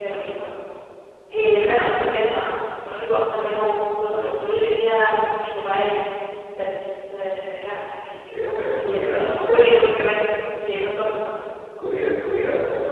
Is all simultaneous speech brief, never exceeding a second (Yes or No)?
No